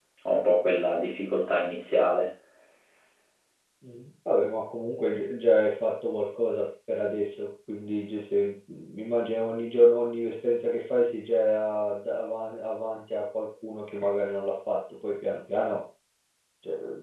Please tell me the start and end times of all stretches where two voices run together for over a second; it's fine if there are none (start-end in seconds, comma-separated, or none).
none